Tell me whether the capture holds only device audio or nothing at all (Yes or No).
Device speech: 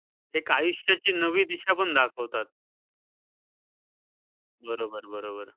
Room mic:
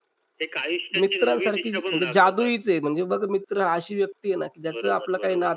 No